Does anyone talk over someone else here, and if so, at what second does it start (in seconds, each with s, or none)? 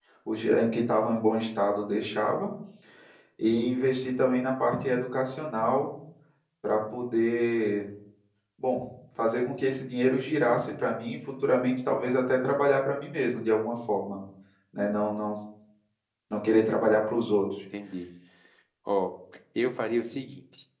none